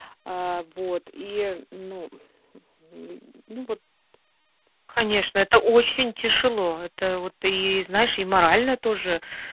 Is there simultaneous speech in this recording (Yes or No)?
No